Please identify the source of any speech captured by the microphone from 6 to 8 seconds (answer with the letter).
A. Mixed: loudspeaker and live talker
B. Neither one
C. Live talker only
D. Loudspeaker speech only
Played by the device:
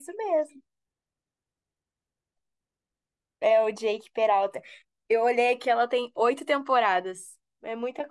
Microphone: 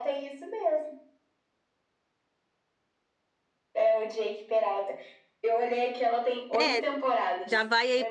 A